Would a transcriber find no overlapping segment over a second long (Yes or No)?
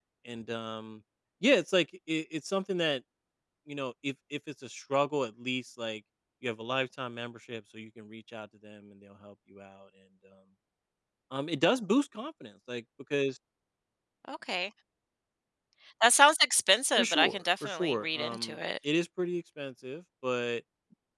No